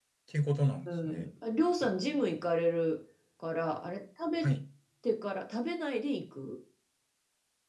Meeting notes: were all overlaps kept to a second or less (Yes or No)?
Yes